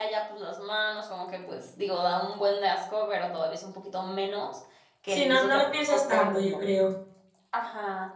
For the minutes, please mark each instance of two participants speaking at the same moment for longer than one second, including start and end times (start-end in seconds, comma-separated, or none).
5.1-6.6